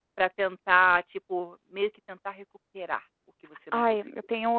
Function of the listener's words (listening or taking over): taking over